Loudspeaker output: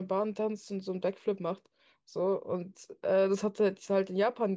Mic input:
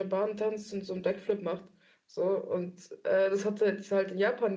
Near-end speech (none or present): none